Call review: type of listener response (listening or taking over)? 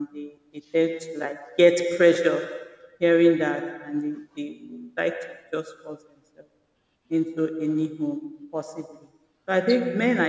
listening